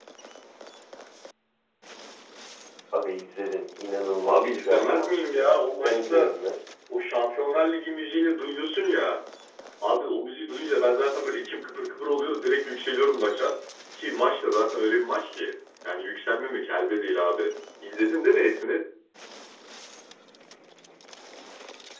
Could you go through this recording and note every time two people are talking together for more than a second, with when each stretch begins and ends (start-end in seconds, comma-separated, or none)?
4.2-6.3